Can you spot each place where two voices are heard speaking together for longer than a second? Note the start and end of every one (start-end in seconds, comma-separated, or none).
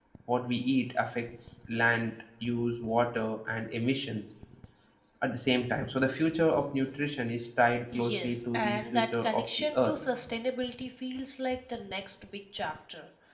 7.9-9.9